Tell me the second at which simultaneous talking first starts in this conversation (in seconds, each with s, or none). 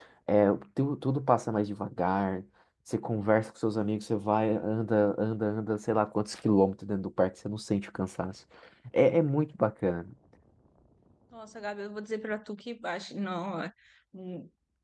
none